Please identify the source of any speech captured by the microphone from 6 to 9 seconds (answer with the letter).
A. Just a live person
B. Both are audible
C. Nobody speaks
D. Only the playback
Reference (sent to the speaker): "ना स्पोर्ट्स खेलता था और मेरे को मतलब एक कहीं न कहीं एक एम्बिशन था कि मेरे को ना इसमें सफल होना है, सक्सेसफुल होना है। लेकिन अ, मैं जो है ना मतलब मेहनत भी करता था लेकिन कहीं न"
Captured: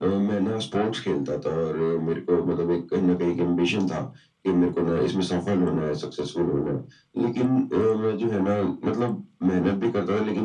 D